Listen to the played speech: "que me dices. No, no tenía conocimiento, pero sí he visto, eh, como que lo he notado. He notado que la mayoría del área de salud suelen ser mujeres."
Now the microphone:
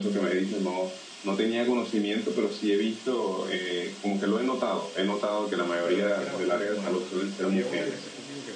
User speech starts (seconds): 6 s

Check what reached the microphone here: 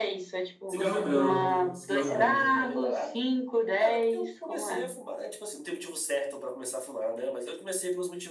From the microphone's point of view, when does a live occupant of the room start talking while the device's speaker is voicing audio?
1 s

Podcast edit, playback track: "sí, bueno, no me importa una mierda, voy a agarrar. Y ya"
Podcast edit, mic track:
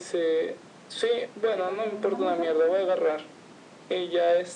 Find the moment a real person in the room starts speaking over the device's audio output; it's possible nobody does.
2 s

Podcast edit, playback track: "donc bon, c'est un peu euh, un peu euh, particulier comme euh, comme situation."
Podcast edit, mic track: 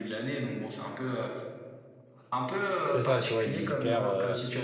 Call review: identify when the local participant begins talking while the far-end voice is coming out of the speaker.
3 s

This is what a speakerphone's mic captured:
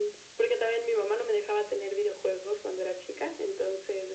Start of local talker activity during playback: none

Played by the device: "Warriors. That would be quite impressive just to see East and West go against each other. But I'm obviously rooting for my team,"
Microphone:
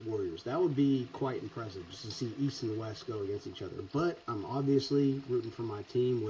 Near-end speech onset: none

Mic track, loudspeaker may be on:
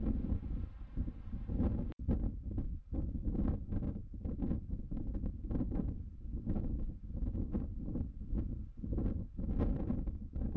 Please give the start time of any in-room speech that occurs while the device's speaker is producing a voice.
none

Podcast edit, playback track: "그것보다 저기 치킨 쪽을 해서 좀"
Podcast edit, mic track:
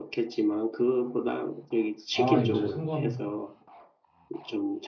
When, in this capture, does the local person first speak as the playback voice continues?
2 s

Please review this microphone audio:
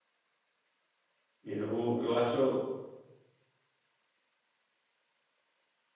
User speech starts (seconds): 1 s

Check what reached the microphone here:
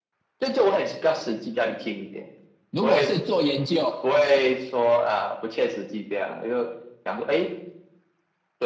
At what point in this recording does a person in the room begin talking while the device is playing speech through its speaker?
3 s

